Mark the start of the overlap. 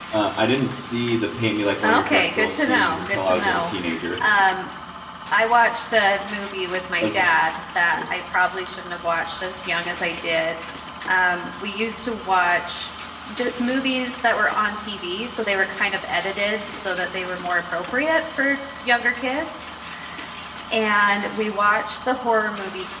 1.8 s

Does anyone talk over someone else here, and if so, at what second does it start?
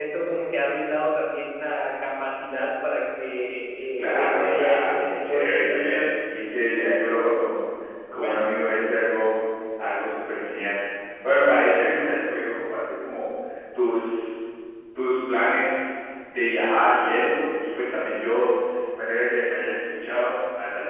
4.0 s

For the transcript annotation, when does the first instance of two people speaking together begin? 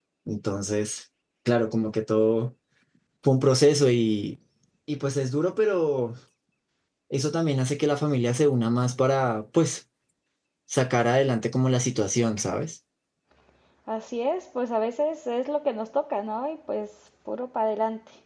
none

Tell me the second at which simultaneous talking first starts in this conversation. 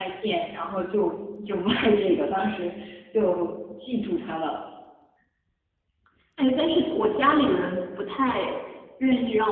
none

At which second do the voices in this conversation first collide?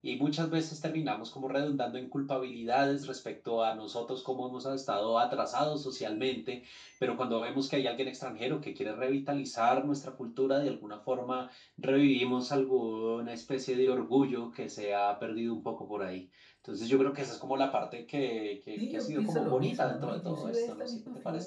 18.8 s

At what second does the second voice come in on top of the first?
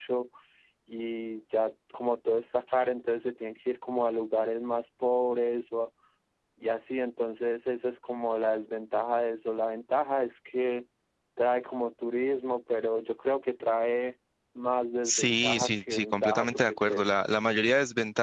15.1 s

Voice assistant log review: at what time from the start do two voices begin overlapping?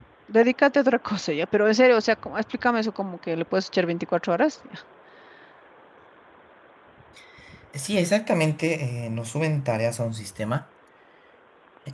none

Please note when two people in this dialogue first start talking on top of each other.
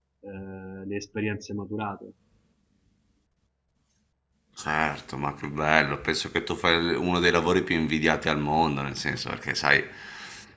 none

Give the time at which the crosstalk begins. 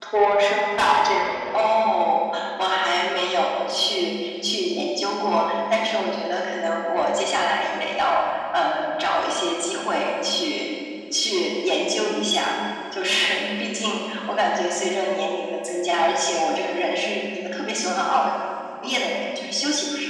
none

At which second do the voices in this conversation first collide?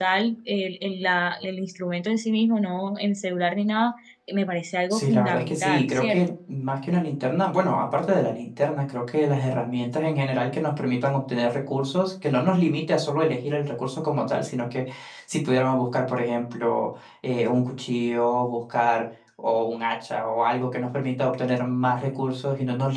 4.9 s

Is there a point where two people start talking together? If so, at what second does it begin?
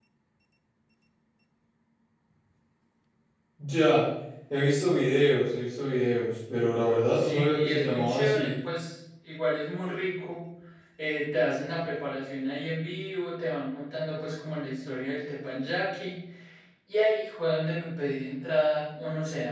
7.1 s

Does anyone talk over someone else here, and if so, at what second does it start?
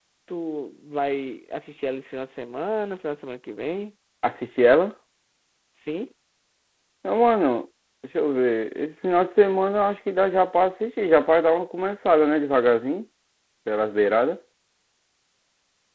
none

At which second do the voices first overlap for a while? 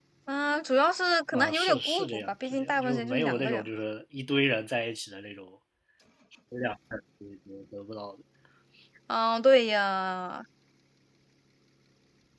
1.3 s

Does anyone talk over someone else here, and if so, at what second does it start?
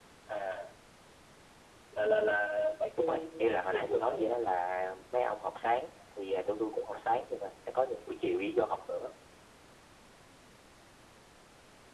3.0 s

